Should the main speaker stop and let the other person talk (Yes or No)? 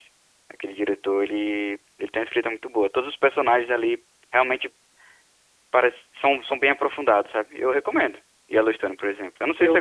Yes